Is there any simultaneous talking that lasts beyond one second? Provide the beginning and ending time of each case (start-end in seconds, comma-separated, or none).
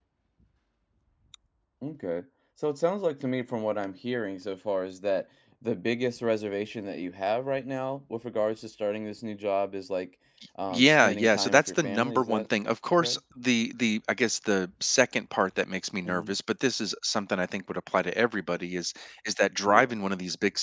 10.7-12.5